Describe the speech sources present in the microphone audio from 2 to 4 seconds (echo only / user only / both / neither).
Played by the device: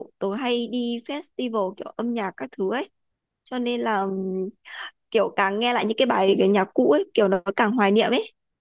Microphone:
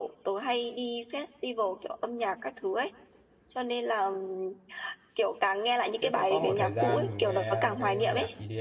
echo only